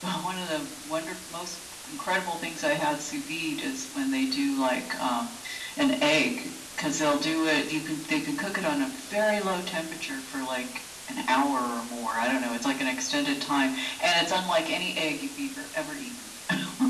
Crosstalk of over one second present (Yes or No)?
No